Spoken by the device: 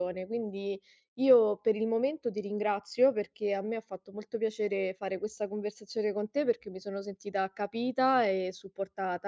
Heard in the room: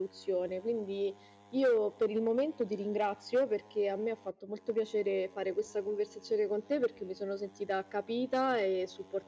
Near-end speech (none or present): none